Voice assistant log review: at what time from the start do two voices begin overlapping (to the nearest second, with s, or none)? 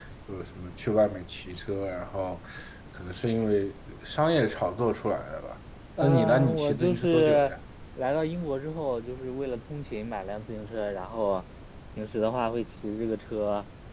6 s